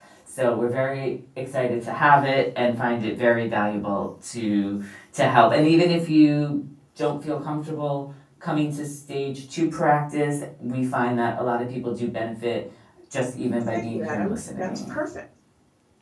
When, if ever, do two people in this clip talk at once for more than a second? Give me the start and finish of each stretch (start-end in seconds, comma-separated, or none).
13.6-14.9